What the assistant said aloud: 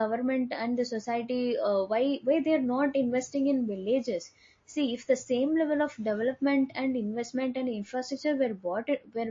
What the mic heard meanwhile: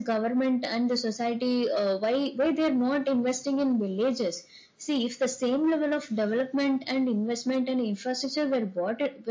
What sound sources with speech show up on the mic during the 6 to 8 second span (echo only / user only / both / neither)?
echo only